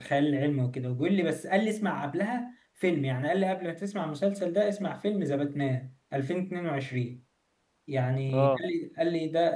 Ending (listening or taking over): listening